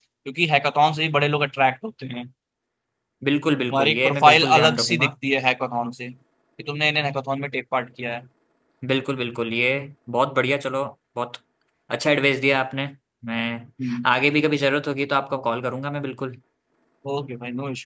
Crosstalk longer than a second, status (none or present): present